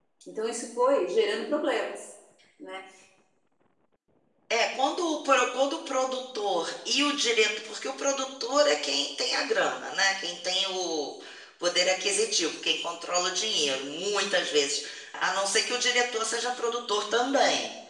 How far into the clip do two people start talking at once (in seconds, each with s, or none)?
none